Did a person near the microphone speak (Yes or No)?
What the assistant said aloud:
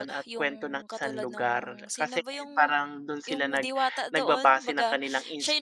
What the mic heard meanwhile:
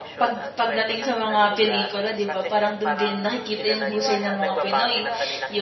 Yes